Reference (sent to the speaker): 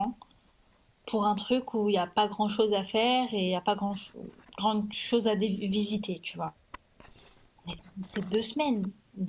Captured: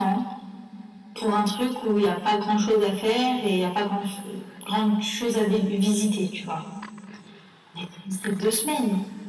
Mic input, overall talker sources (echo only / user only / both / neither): echo only